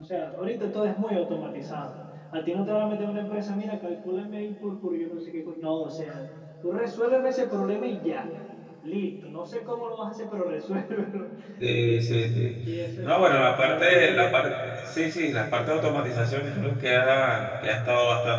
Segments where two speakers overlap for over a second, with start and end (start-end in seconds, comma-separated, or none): 13.0-14.5